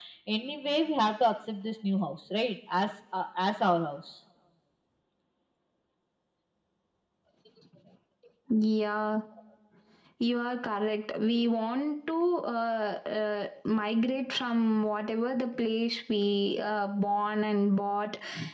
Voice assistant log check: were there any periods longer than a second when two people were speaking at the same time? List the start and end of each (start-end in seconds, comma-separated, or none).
none